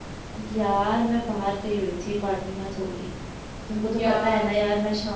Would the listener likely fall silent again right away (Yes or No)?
Yes